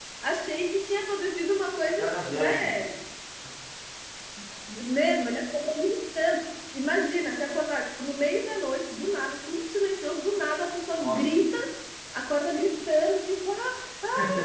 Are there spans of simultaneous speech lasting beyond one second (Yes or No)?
No